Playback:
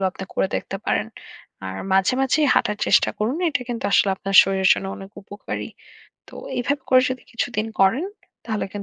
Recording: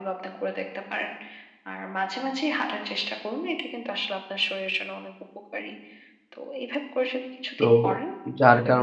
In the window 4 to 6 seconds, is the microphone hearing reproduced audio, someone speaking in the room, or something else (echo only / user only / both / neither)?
echo only